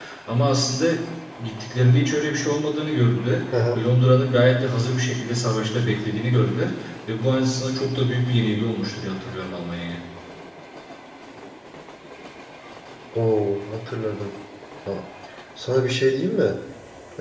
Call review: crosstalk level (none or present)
none